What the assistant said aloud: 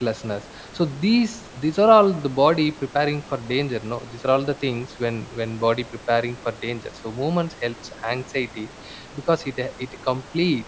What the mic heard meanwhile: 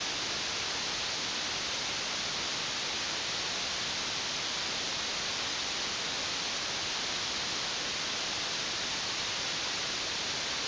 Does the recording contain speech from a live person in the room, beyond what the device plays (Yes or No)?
No